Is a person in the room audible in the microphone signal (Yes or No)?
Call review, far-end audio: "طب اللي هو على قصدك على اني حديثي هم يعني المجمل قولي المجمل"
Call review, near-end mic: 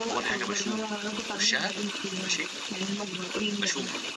Yes